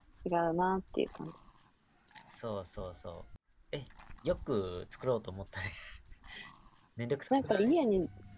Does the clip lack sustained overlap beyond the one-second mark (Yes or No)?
Yes